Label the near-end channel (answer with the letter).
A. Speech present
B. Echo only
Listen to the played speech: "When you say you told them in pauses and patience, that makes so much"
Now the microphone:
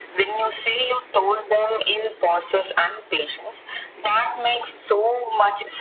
B